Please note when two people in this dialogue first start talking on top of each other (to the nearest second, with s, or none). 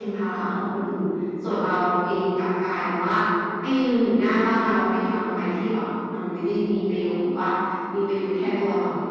none